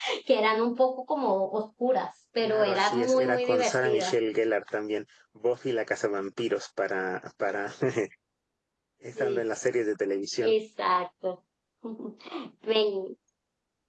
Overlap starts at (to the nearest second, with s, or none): 2 s